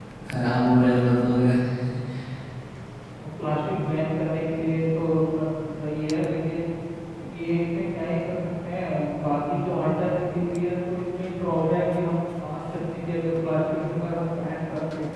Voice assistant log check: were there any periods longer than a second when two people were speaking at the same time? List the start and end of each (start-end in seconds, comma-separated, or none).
none